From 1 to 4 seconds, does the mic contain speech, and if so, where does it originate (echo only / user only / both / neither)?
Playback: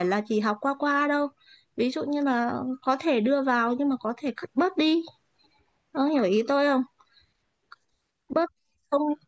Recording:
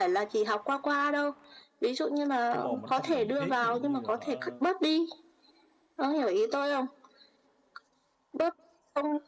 both